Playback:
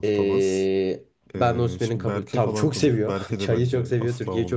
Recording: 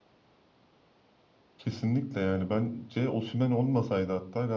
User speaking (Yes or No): Yes